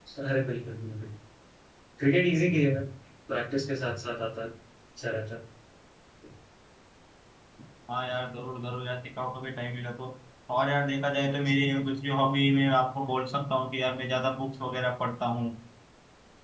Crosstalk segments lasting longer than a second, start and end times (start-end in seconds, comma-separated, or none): none